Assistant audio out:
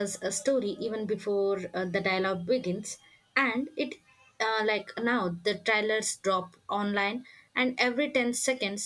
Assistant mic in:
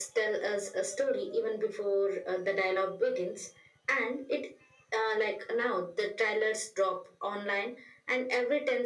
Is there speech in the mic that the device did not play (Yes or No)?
No